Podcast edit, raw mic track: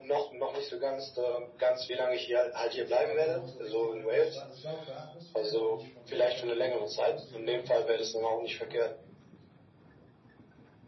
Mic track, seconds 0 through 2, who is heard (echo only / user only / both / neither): echo only